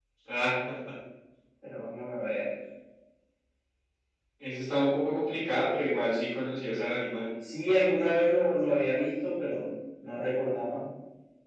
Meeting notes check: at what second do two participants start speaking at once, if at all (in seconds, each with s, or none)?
none